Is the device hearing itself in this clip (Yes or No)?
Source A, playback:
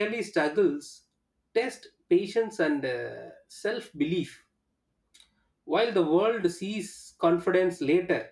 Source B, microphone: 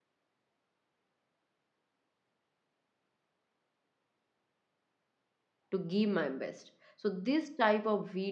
No